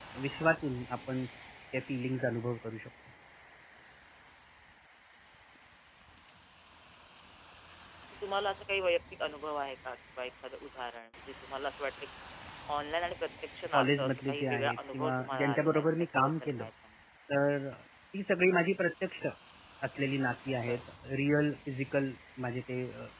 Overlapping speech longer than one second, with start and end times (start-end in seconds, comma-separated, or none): 13.7-16.7